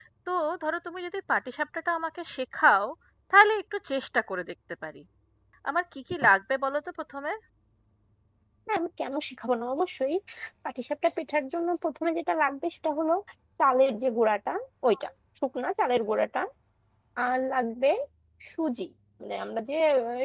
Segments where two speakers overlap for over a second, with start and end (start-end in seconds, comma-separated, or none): none